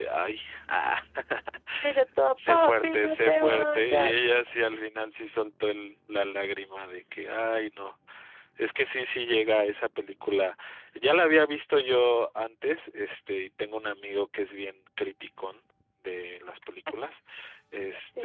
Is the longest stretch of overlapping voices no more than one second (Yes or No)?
No